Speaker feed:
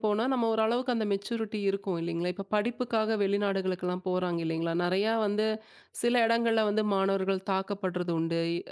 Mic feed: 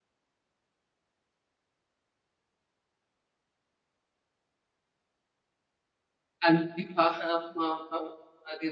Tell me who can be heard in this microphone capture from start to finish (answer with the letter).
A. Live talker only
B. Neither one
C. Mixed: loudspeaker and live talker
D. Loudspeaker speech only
A